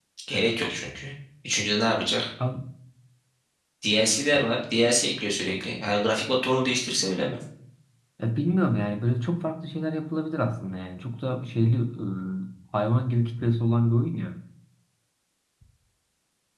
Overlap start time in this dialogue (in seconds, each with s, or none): none